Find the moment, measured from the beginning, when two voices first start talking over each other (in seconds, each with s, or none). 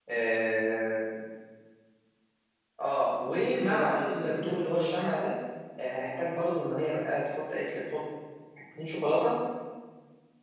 3.3 s